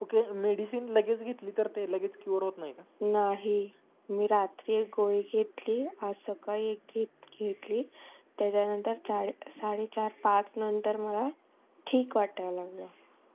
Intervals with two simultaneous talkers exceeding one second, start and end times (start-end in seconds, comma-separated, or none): none